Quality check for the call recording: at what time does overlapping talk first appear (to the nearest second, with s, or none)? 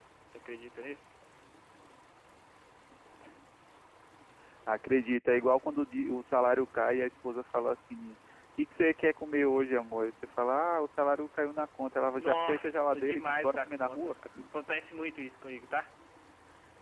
12 s